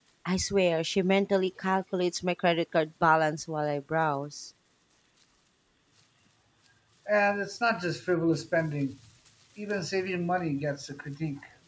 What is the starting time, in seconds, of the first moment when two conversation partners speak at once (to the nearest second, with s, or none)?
none